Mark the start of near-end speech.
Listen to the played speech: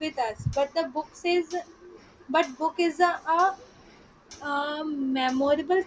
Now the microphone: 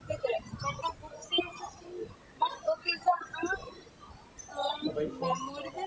4.8 s

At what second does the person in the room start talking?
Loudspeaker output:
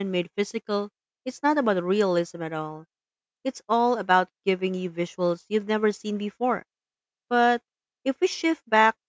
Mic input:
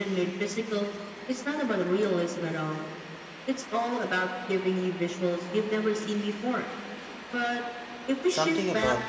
8.2 s

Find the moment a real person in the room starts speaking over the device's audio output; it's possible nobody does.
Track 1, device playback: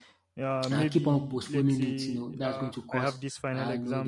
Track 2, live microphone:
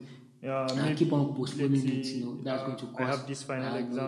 none

